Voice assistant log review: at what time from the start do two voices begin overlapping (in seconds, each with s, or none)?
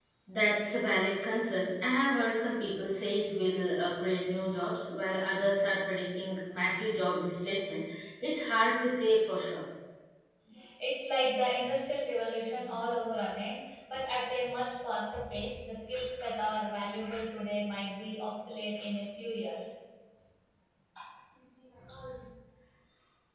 none